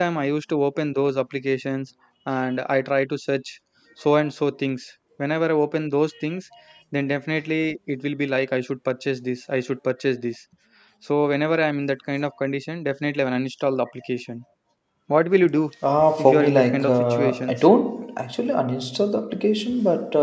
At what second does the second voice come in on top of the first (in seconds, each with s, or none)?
16.2 s